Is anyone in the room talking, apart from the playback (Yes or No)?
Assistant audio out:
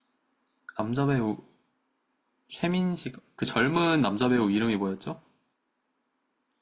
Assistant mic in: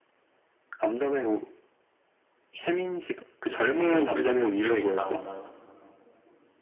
Yes